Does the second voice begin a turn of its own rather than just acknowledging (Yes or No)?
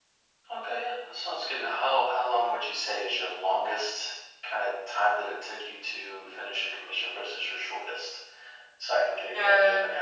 Yes